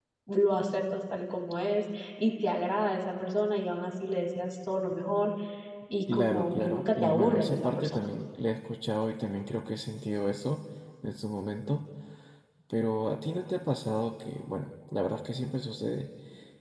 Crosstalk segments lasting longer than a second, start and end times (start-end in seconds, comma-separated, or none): 6.1-8.1